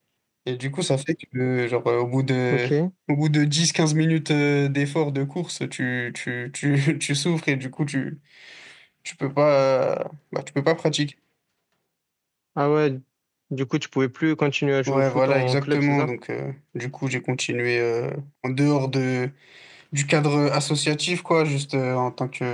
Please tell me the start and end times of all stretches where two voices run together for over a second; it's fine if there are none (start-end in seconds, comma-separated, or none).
14.9-16.1